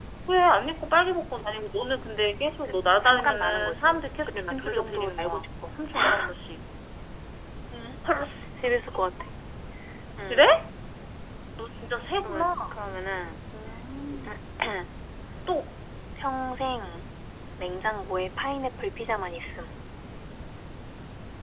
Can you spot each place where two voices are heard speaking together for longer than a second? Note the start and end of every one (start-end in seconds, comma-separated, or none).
3.0-5.5